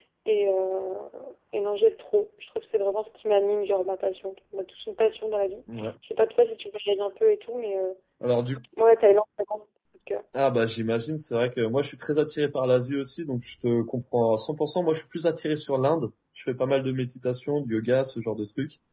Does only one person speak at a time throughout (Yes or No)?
Yes